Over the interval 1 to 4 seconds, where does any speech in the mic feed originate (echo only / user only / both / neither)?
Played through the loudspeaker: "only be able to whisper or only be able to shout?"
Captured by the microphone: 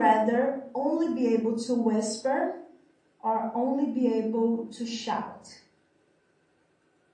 echo only